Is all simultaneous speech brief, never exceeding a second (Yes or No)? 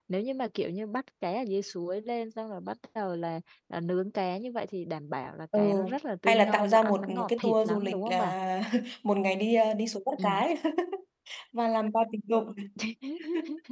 No